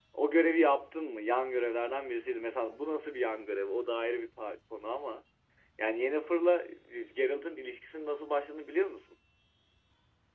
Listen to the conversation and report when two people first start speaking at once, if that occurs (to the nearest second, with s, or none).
none